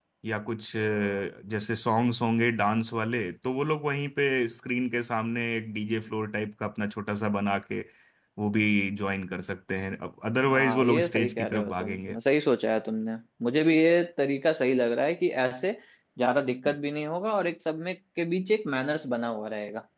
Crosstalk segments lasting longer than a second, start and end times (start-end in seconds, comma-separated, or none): 10.5-12.2